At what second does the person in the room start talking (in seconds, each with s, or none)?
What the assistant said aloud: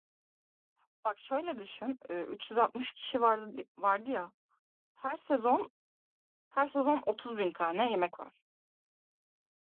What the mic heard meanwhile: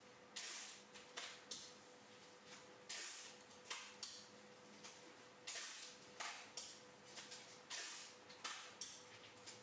none